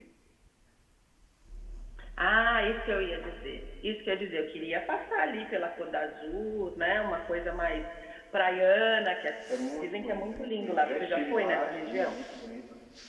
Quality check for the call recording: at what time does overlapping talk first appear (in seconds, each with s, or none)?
9.8 s